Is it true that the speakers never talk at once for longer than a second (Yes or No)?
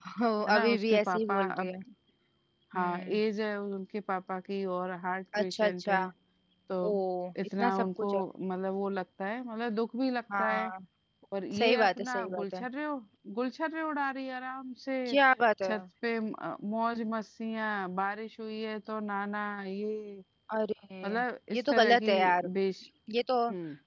No